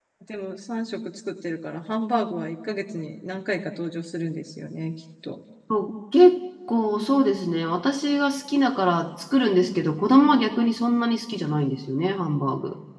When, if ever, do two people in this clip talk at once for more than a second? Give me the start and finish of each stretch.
none

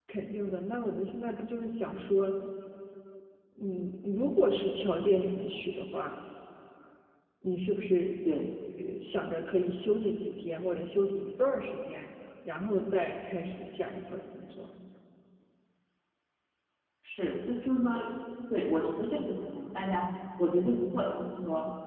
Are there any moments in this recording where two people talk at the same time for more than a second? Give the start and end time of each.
none

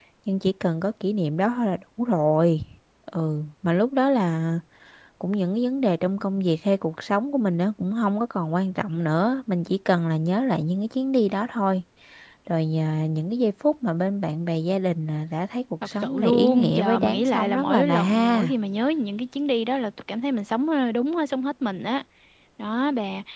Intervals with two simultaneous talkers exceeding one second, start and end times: 16.0-18.5

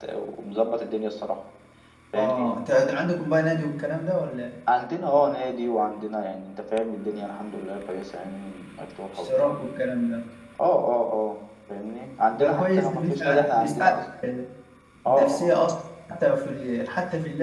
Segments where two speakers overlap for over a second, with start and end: 12.3-13.9

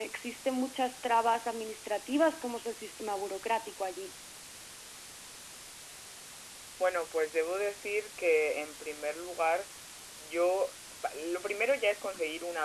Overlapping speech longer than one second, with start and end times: none

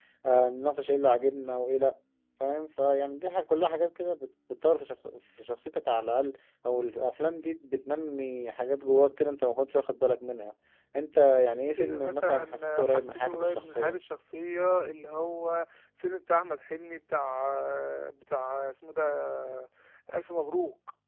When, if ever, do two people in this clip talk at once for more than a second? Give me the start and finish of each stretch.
11.8-14.0

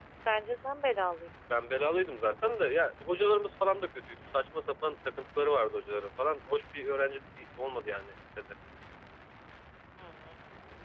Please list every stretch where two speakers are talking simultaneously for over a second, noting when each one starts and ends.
none

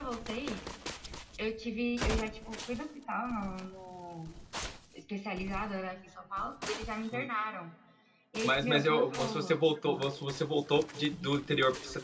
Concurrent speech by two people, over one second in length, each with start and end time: 8.4-10.1

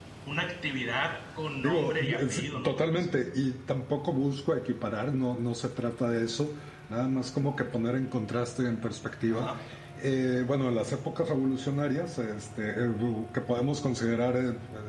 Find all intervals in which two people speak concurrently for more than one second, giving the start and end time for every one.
1.6-3.0

